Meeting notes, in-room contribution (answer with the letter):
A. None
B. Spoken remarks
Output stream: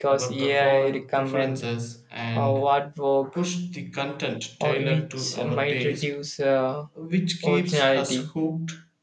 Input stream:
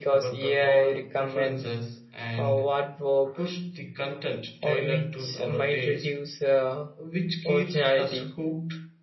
A